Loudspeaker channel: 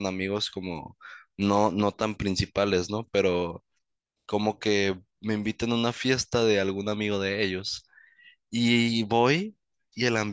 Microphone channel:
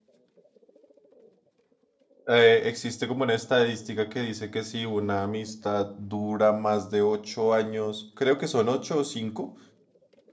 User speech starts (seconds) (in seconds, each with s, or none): 2.2 s